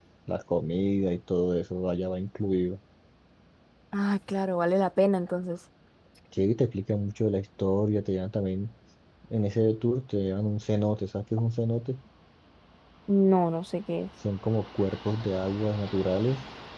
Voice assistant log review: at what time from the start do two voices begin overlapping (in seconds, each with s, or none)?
none